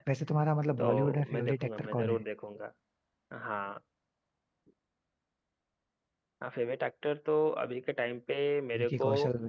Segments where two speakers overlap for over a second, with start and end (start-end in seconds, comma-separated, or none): 0.8-2.2